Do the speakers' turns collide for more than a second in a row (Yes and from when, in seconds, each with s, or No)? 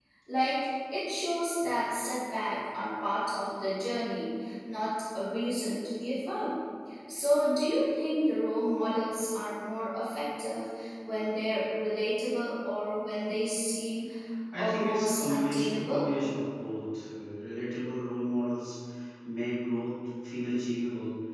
Yes, from 14.5 s